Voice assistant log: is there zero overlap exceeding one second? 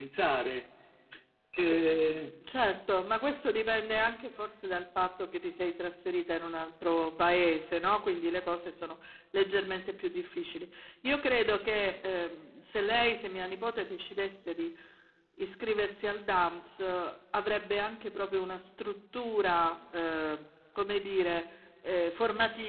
Yes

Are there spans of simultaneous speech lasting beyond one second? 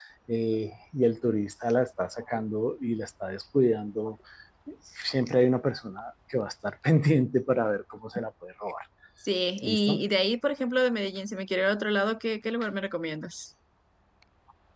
No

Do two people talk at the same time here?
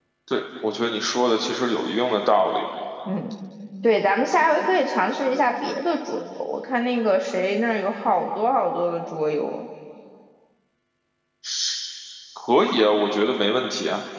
No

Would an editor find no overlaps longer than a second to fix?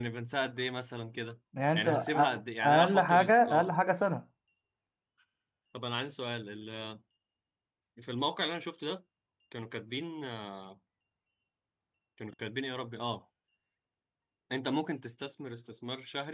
No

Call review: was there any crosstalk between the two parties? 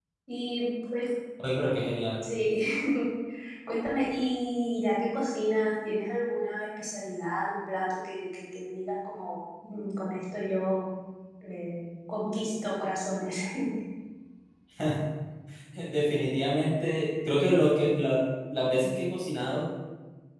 No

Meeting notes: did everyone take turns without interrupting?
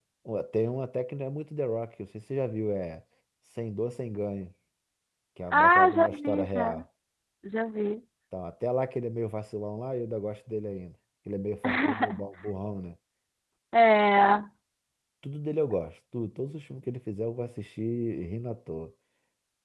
No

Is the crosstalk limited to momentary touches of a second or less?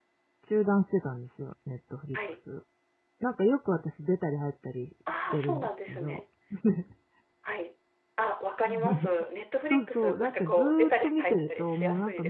No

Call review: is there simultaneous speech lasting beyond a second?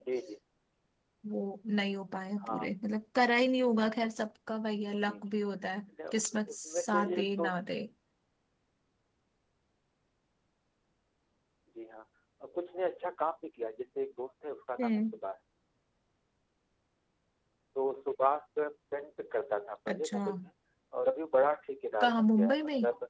Yes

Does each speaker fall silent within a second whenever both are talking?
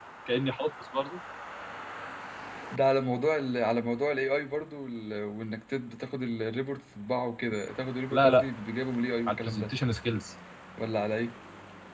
Yes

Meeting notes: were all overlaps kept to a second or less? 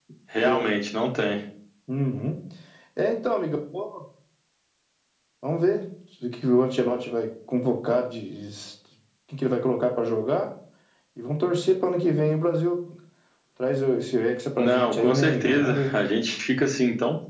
No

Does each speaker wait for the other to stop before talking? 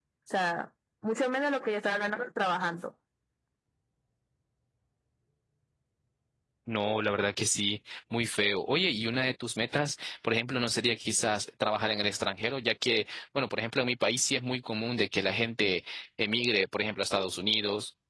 Yes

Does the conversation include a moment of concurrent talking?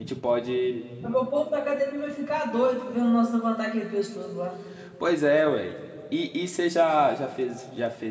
No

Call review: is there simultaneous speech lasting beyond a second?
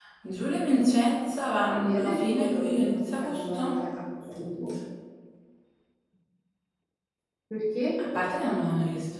Yes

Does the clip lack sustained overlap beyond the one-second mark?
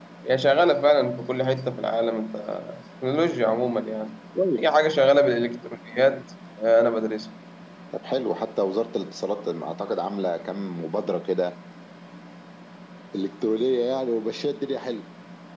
Yes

